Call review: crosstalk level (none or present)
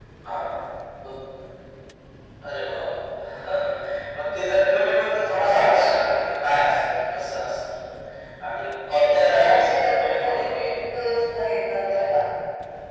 present